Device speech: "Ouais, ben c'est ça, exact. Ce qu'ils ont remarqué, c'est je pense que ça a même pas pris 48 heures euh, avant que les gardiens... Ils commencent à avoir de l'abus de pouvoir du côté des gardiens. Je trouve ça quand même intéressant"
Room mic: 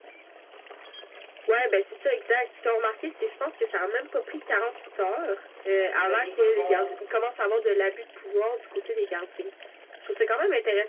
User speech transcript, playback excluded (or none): Puis ben des fois, ils vont